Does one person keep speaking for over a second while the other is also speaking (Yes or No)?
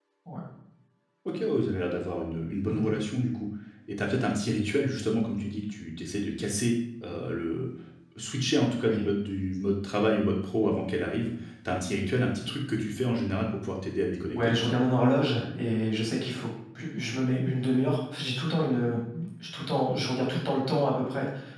No